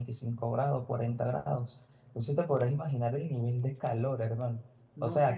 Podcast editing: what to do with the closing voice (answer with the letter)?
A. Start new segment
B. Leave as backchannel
A